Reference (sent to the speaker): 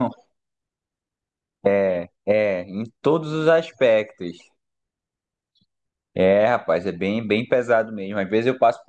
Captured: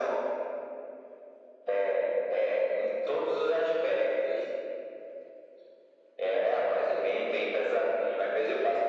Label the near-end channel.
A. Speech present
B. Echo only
B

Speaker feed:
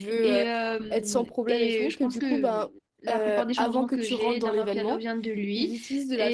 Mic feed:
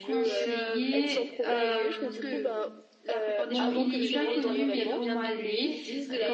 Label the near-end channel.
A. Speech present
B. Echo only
A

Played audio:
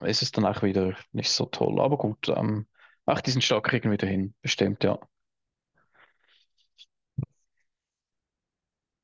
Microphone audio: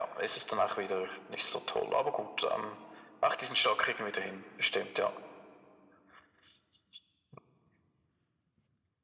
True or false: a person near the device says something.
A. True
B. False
B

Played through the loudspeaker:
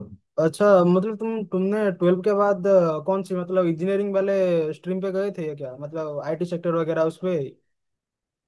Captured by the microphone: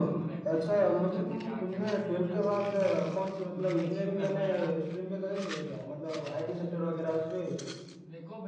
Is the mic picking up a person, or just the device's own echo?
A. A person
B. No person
A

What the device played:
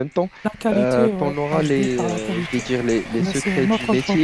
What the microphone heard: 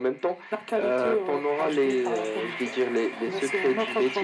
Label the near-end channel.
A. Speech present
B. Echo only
B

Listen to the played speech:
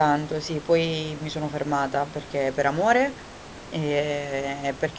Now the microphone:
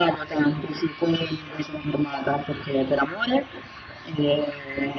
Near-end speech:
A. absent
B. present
A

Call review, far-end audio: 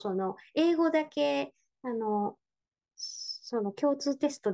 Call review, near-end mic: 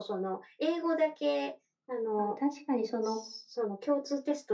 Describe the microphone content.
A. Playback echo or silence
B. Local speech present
B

